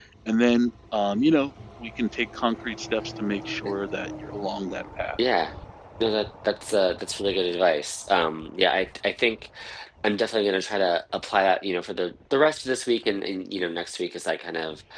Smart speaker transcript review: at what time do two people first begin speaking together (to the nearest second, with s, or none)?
none